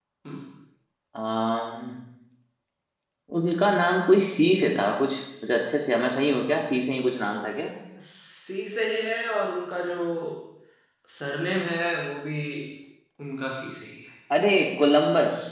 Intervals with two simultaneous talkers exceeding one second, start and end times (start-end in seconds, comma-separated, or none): none